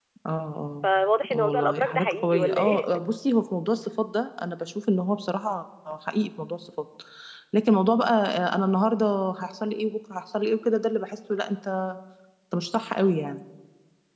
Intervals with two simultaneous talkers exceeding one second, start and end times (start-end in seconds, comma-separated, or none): 1.3-2.9